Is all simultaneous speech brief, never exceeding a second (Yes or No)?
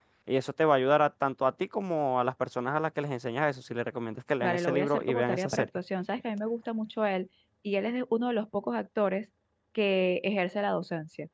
No